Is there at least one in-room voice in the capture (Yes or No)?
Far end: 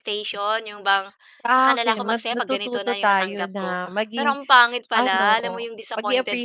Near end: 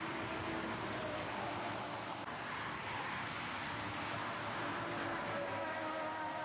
No